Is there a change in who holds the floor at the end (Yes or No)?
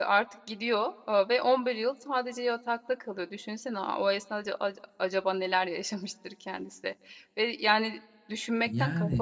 No